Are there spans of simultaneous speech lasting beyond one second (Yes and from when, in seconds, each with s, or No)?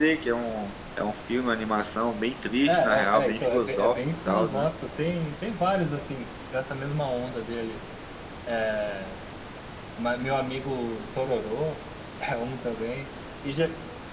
Yes, from 2.7 s